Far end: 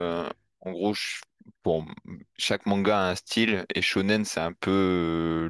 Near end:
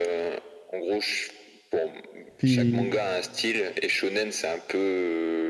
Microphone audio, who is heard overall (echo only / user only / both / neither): both